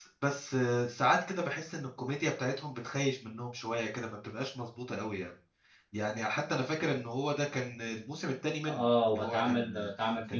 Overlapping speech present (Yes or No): Yes